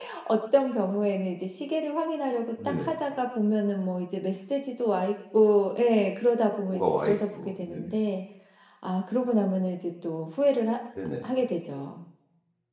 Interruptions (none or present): present